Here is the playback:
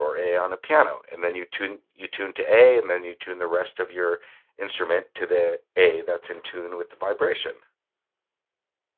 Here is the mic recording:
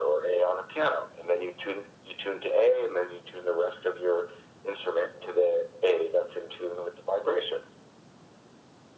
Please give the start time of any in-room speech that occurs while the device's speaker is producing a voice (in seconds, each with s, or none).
none